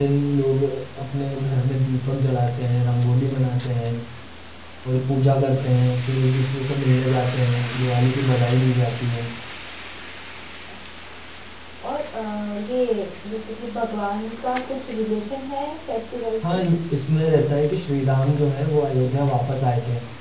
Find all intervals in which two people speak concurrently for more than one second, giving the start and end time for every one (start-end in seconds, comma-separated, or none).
none